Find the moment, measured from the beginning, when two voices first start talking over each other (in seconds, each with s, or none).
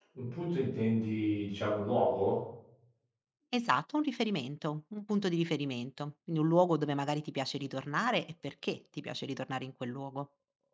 none